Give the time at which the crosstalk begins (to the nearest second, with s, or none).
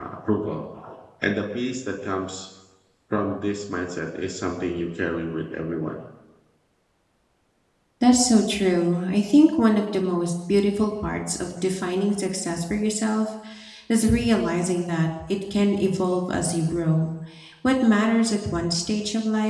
none